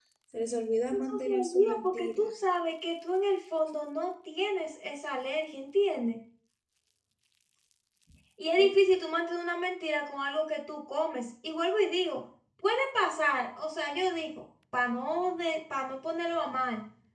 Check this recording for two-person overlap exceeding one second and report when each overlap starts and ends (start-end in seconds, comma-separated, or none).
0.9-2.3